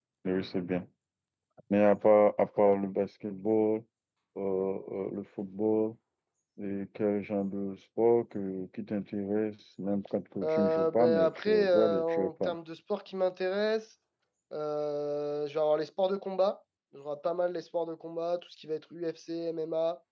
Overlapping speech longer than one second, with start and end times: 10.4-12.6

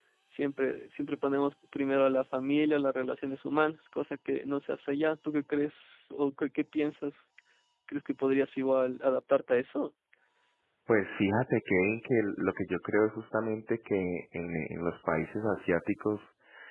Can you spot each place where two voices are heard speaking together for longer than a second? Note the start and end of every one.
none

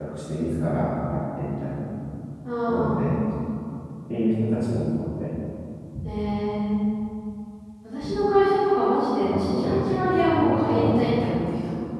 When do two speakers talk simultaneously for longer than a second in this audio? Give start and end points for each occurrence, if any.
9.2-11.3

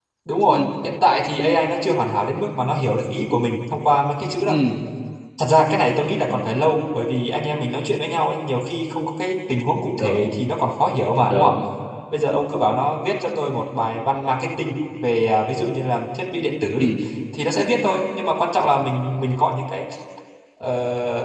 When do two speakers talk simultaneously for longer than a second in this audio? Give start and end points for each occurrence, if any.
none

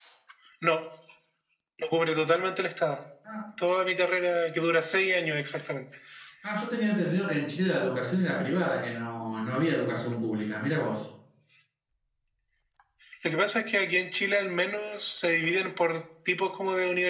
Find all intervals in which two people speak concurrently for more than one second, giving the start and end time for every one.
none

